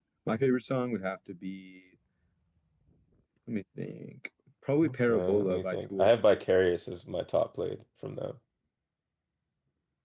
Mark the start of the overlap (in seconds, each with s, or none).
4.8 s